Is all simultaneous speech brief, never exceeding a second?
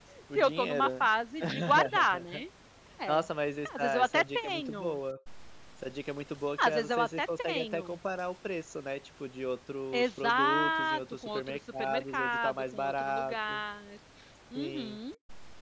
No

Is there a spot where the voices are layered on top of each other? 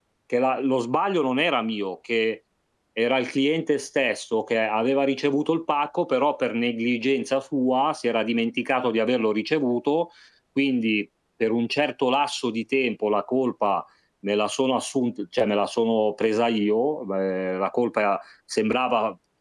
No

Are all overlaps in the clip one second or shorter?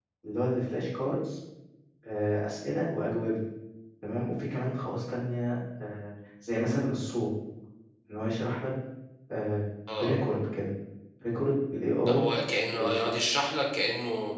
Yes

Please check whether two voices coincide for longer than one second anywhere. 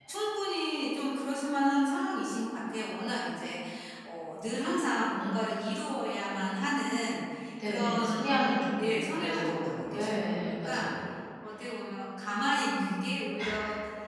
Yes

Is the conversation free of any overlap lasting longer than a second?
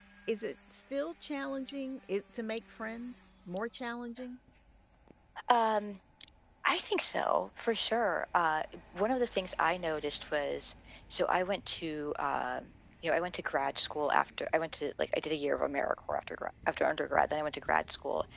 Yes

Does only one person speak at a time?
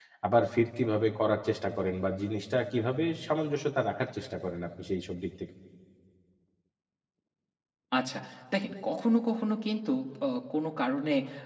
Yes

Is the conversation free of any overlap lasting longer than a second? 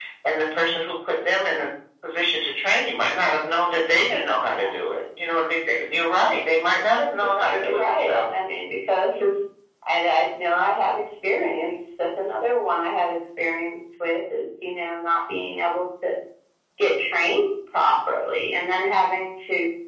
No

